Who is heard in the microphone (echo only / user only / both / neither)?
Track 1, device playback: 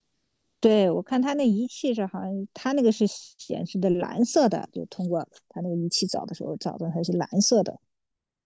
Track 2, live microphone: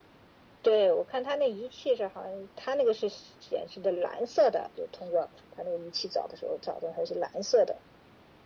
echo only